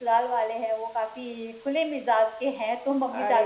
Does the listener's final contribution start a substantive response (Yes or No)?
No